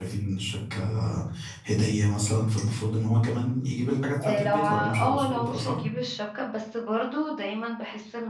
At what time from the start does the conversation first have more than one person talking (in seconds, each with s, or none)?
4.2 s